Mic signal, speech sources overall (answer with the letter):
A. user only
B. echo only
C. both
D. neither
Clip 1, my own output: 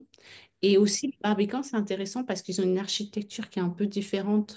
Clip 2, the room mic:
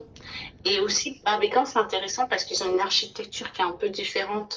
B